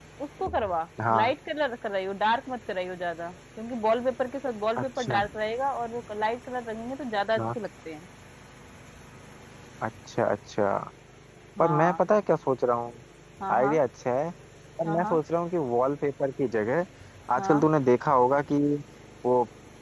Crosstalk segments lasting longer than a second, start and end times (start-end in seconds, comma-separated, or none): none